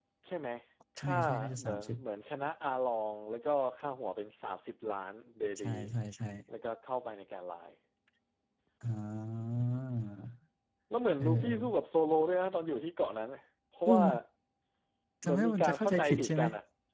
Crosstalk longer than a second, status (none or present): present